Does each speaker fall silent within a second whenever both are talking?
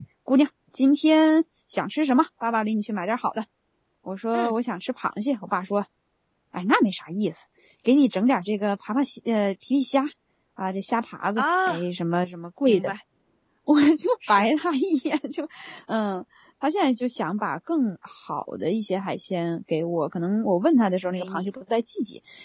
Yes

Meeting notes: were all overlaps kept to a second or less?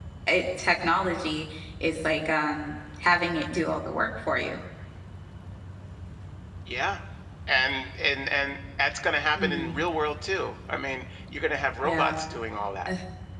Yes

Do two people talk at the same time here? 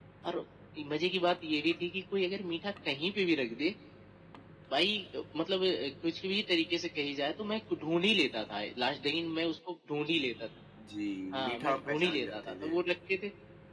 Yes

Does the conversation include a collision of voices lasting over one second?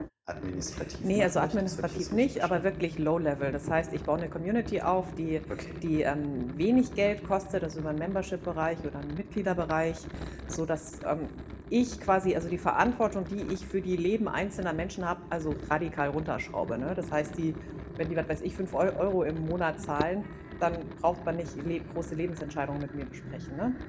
Yes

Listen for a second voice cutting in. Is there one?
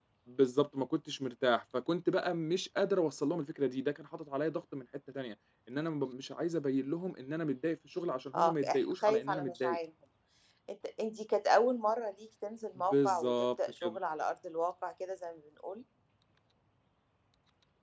Yes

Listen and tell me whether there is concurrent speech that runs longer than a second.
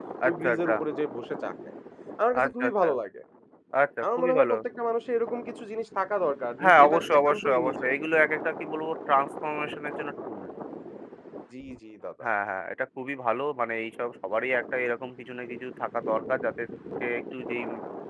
Yes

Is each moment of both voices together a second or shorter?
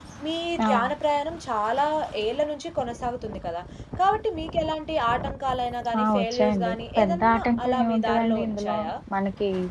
No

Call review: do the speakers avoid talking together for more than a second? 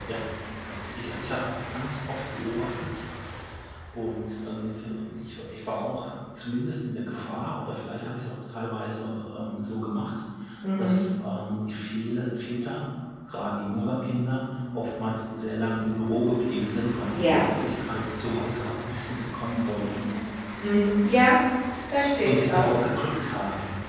Yes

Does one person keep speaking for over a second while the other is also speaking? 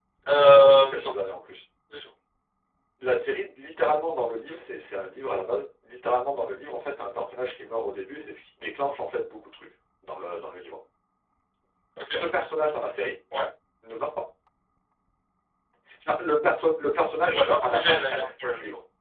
Yes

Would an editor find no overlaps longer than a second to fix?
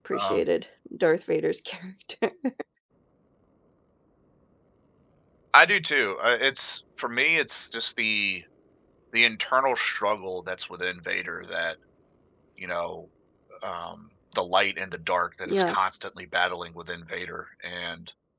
Yes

